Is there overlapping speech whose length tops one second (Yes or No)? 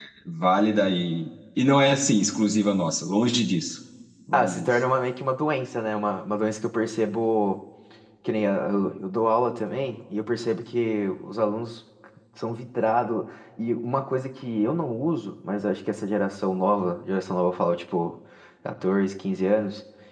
No